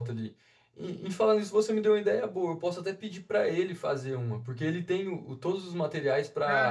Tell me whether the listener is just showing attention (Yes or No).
No